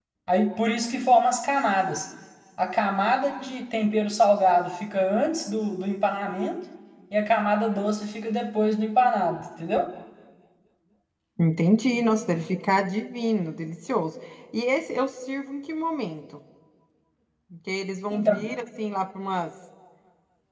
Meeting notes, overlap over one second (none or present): none